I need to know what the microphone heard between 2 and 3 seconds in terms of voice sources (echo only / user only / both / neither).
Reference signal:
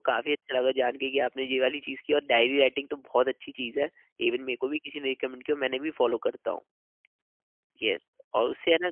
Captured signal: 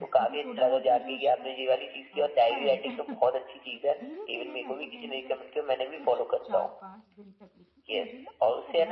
both